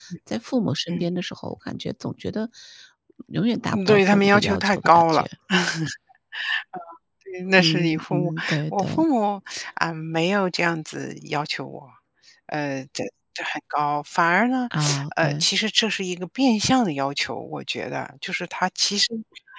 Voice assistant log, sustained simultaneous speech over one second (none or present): present